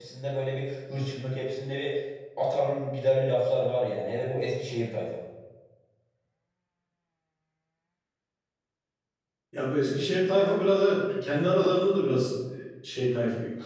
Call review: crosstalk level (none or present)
none